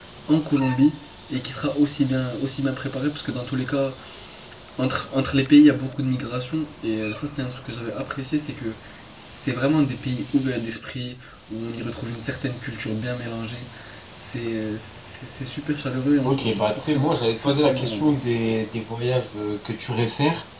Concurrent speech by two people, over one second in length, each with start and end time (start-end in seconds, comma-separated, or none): 16.2-18.1